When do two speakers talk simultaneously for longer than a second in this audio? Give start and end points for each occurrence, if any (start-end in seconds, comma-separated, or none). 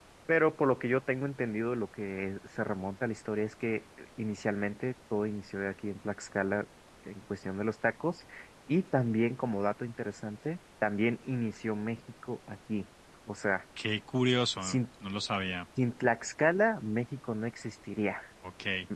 none